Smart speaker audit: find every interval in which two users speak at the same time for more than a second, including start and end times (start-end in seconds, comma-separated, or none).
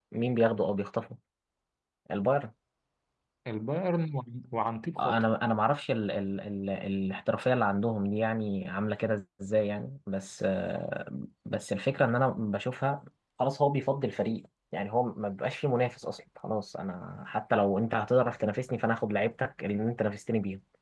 none